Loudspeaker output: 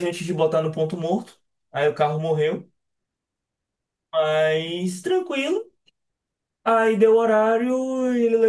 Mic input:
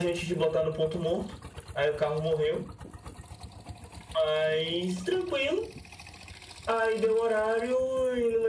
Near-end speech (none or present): none